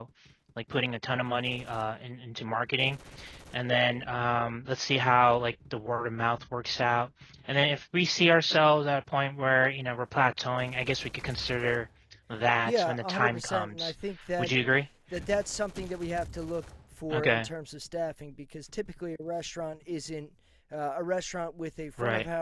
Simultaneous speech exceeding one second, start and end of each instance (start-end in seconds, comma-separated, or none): 12.7-13.9